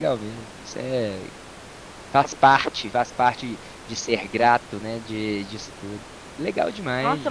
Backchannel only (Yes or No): No